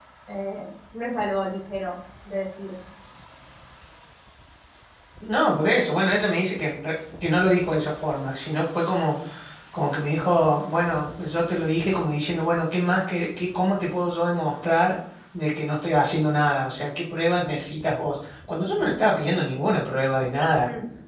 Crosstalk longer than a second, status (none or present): none